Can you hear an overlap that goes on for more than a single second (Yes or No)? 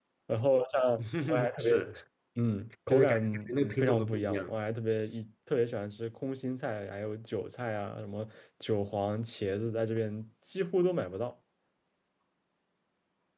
Yes